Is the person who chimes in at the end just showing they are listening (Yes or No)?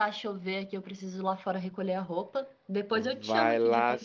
No